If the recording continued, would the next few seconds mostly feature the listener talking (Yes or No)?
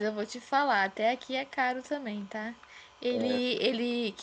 No